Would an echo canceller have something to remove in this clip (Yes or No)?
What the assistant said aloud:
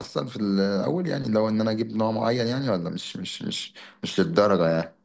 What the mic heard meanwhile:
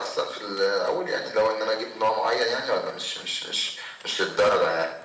Yes